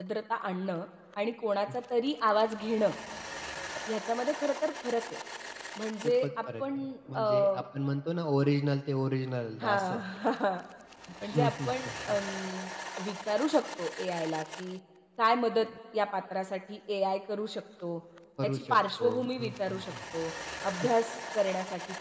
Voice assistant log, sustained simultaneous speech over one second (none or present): present